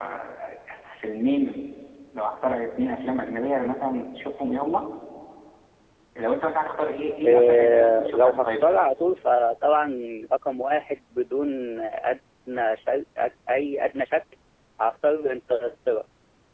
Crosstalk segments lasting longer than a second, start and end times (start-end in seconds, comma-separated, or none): 7.2-8.7